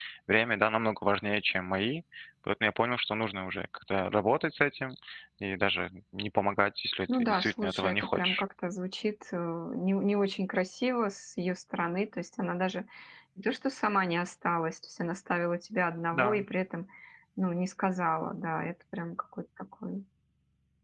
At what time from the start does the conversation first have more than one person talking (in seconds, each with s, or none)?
7.1 s